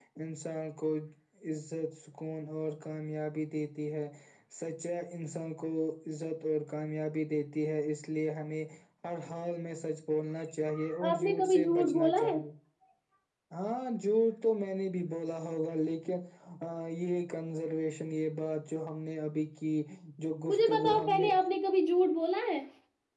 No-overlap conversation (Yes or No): No